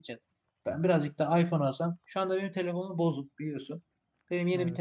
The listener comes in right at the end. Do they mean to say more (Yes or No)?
No